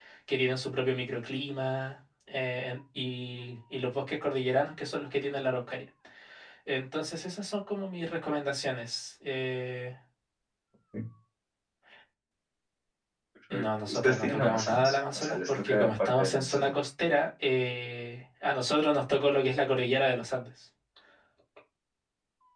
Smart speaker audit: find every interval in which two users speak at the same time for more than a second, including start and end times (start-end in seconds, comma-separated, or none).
13.5-16.7